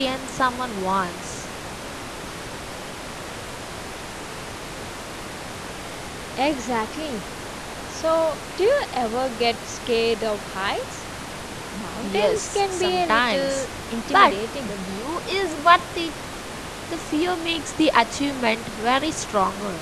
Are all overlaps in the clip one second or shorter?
No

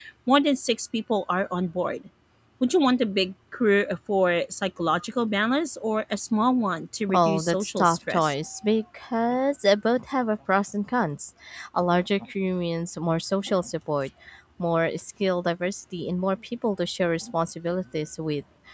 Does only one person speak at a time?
No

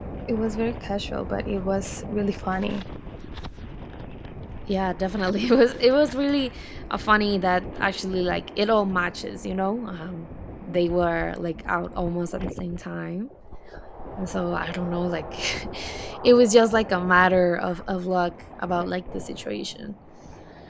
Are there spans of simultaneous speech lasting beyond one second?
No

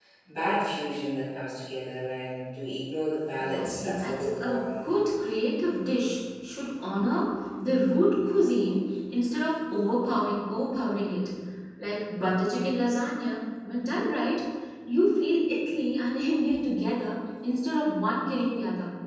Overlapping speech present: Yes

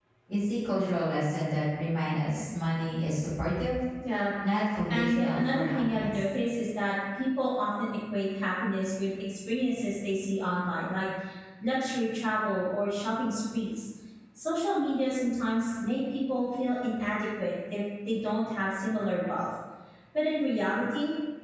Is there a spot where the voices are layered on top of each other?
Yes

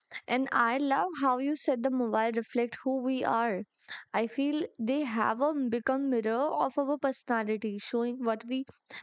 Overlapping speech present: No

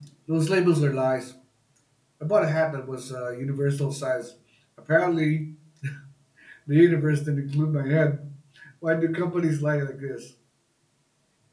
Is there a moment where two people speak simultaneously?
No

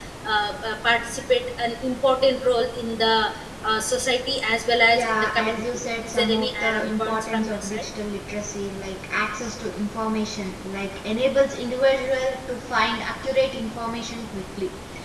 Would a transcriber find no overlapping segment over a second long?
No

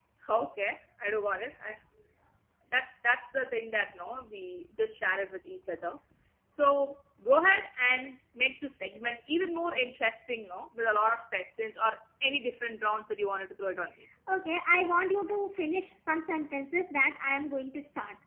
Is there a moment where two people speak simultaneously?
No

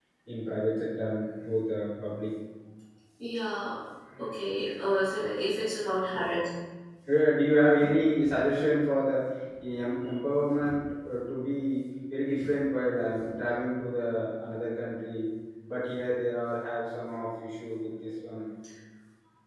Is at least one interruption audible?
No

